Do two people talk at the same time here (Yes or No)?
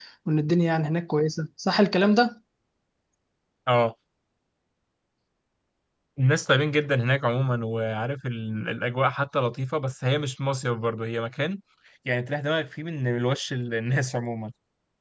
No